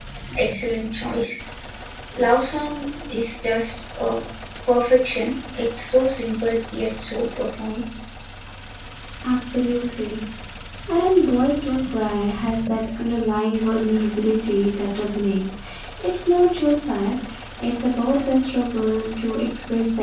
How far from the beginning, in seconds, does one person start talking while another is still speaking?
none

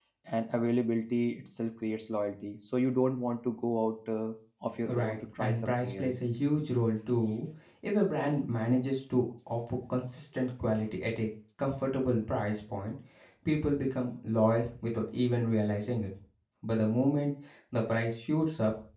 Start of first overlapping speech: 4.8 s

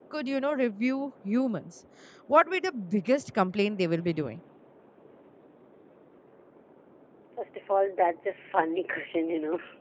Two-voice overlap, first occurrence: none

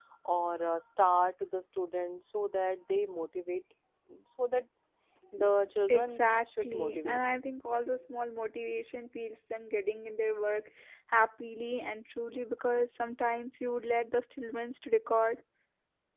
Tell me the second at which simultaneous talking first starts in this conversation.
5.9 s

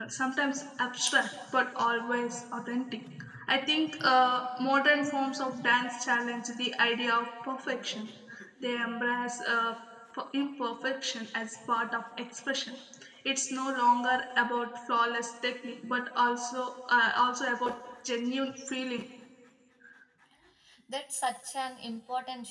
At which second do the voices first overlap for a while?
none

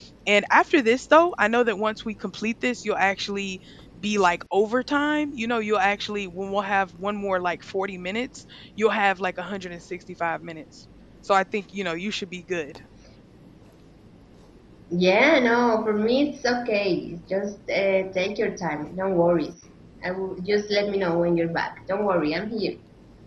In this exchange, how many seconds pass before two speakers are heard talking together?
none

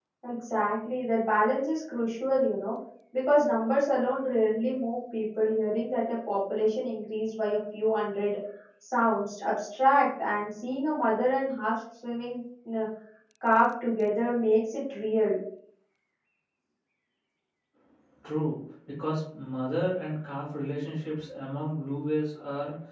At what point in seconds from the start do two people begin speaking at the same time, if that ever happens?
none

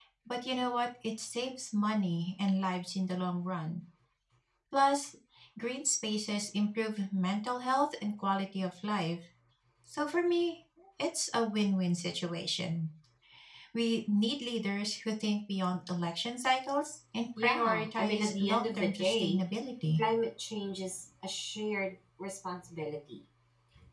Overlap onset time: 17.4 s

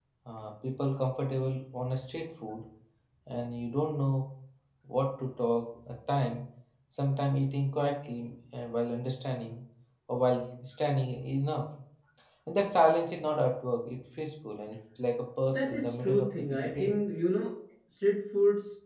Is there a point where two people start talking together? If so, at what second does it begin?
15.5 s

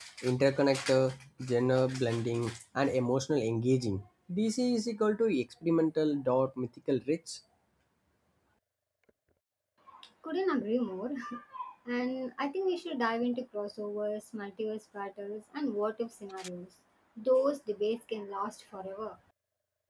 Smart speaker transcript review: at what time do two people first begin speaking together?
none

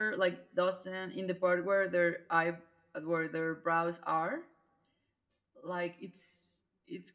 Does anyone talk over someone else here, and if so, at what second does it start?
none

